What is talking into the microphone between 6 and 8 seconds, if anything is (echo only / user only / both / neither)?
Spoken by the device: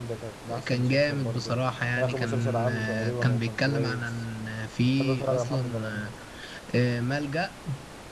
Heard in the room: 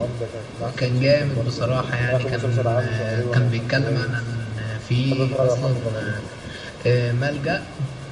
echo only